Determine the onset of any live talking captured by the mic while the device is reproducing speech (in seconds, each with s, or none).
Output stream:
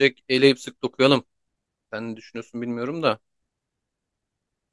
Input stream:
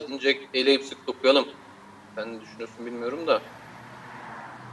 none